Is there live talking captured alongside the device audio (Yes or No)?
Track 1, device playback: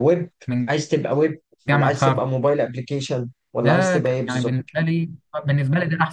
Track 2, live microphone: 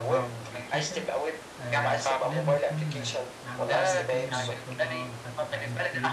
Yes